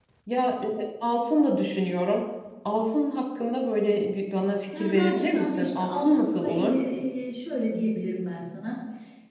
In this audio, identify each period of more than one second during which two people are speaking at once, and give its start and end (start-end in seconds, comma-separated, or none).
4.7-6.8